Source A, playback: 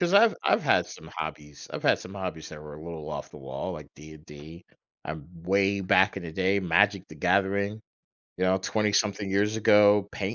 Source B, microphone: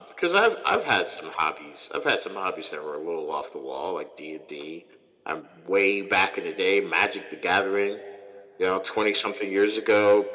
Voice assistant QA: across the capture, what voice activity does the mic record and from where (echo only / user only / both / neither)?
echo only